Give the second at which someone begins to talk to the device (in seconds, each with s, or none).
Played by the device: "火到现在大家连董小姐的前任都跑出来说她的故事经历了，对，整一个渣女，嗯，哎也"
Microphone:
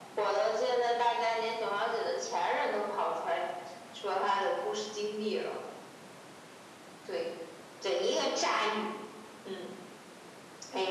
none